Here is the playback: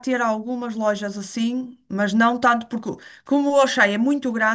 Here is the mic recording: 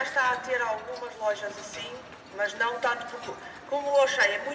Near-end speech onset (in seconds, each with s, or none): none